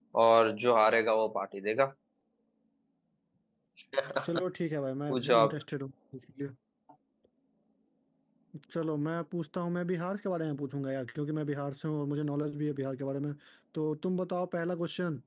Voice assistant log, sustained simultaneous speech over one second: none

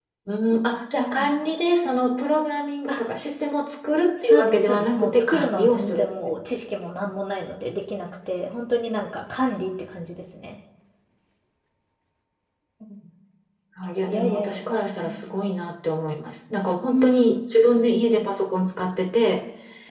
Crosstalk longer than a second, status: present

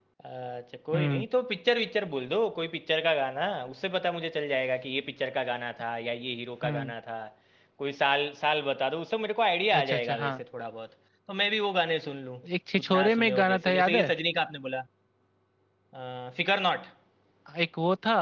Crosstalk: present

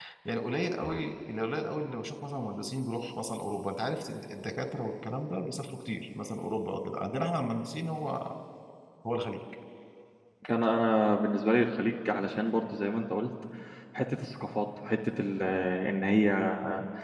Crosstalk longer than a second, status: none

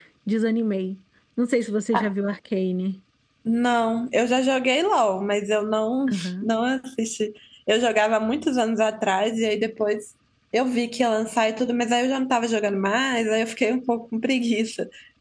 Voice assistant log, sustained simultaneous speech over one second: none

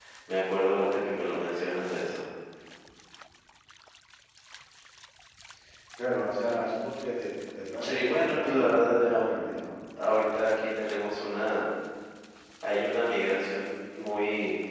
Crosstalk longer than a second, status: present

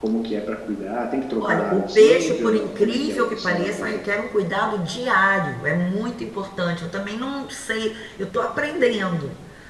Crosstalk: present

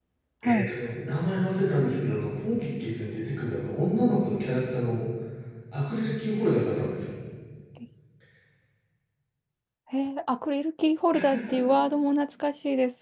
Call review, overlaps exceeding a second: none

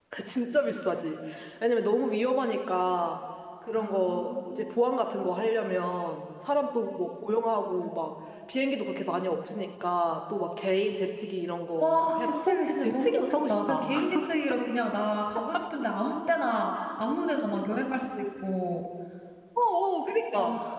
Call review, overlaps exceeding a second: present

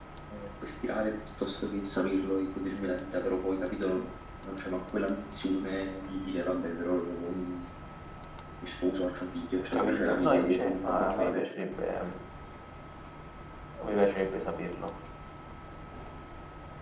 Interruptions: present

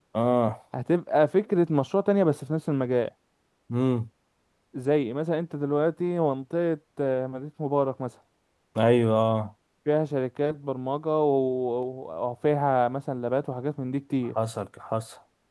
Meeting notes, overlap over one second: none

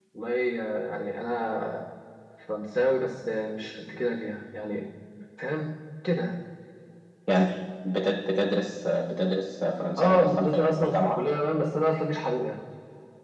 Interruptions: present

